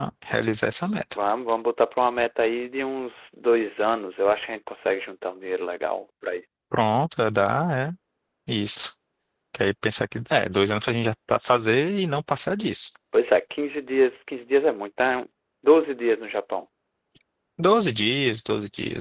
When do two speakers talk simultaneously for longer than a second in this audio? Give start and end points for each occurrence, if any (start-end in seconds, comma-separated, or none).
none